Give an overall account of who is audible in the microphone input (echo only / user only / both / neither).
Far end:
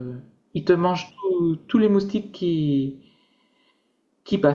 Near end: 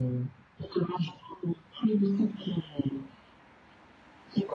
echo only